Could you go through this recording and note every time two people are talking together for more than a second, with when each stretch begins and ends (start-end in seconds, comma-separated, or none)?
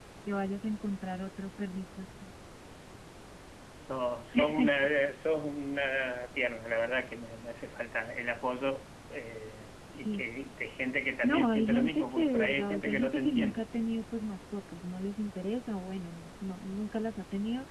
11.2-13.7